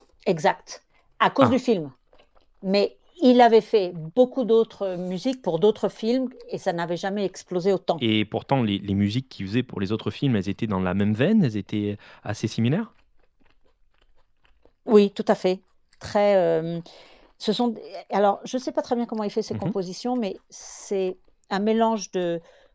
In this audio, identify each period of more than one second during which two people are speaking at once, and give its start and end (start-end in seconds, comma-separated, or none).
none